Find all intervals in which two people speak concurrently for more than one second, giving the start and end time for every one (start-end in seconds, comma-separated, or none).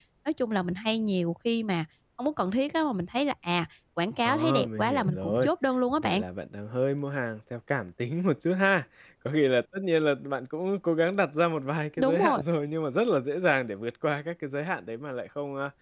4.2-5.5